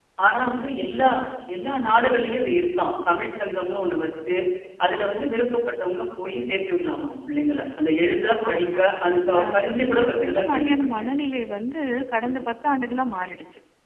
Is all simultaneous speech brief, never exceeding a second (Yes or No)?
No